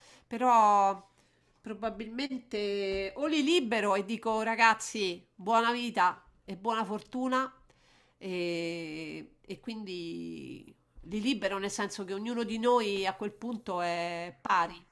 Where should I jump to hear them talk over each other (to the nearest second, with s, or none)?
none